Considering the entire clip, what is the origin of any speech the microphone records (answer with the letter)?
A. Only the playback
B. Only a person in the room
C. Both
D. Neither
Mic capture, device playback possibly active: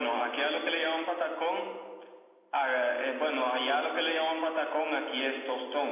A